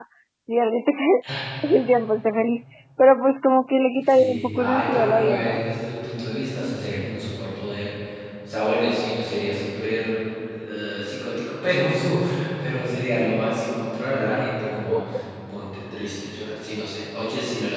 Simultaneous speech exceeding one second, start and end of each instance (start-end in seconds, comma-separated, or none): 4.0-5.6